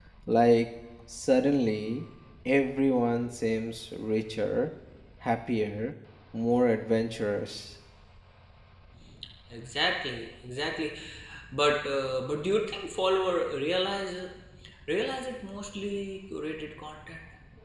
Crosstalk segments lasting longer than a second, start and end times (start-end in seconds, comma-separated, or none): none